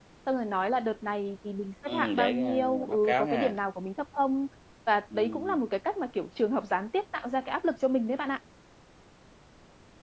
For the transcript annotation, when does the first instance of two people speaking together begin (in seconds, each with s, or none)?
1.9 s